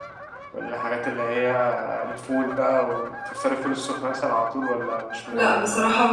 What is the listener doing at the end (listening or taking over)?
taking over